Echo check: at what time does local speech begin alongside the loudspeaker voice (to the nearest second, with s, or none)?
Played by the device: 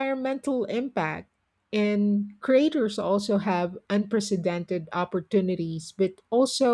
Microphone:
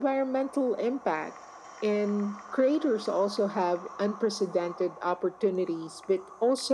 none